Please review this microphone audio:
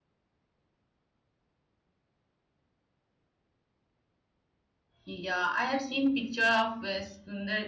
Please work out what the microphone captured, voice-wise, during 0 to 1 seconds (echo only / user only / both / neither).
neither